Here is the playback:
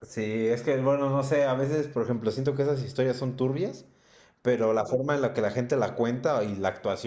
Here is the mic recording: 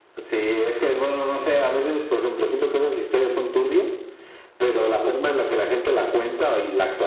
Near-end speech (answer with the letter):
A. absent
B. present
A